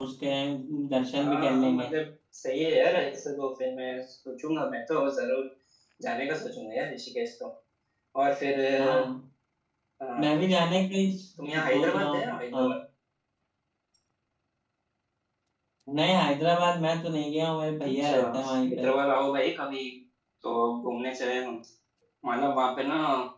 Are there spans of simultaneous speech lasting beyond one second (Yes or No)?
Yes